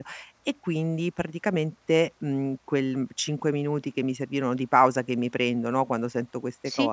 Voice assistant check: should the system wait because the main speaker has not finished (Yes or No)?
Yes